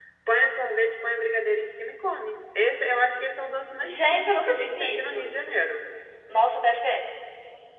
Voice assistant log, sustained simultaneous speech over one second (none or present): present